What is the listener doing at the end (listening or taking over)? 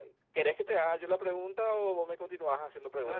taking over